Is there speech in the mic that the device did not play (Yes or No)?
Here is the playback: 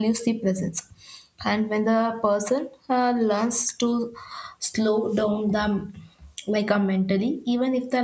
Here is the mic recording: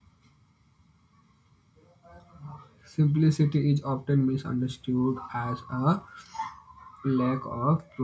Yes